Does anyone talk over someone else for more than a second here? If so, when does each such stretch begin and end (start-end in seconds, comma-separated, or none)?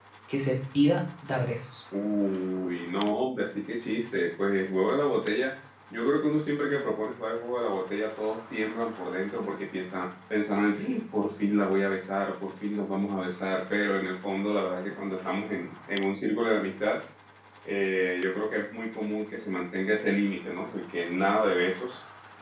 none